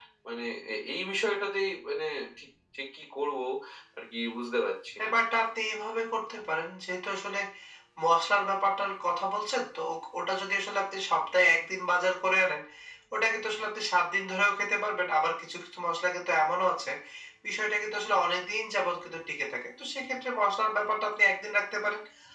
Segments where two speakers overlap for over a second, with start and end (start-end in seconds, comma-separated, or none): none